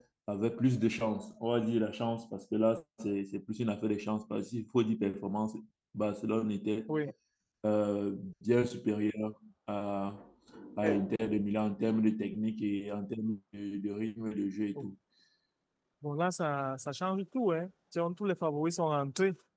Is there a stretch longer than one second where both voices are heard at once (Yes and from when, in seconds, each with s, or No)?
No